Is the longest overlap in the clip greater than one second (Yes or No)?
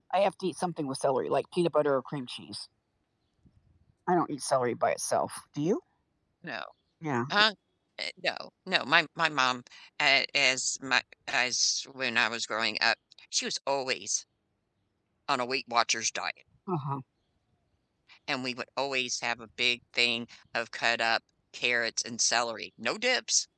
No